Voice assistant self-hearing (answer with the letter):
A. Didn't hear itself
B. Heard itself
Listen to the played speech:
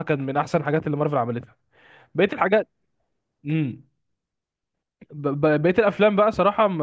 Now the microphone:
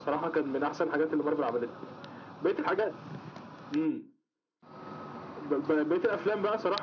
B